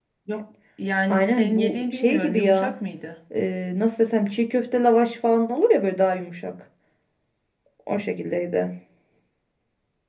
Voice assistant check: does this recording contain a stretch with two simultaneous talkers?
Yes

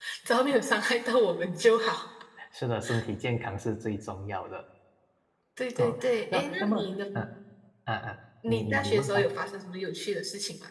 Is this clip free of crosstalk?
No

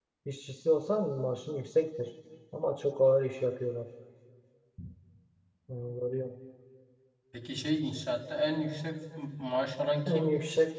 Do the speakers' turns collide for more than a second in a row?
No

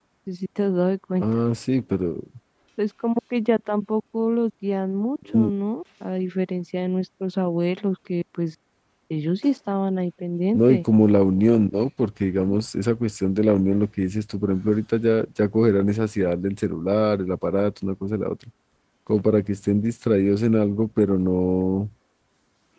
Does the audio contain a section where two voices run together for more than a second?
No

